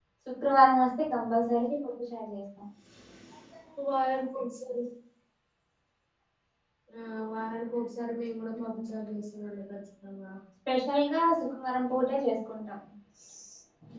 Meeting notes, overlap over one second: none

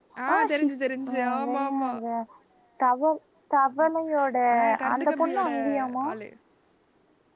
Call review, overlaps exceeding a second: present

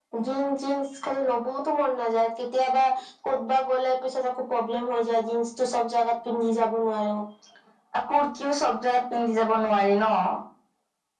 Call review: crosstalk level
none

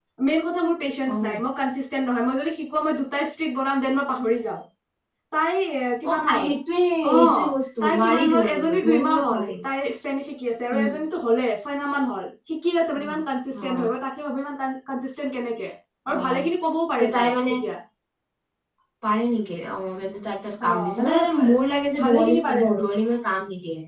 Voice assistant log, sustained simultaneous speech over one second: present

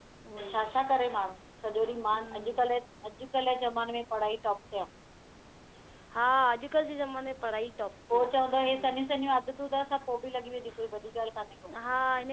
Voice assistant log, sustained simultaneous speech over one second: none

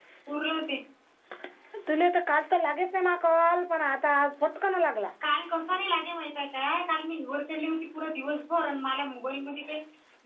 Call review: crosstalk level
none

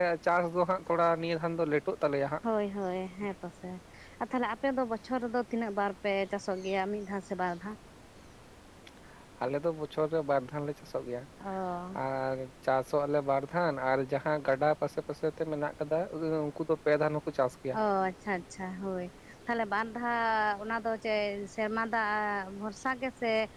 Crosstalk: none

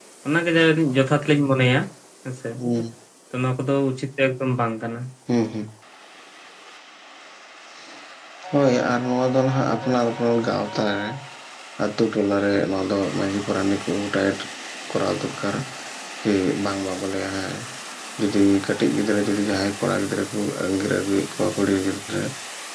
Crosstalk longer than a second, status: none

